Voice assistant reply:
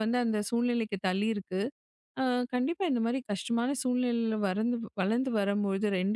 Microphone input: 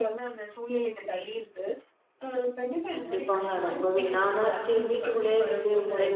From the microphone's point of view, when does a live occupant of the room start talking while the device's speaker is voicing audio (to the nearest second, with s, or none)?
3 s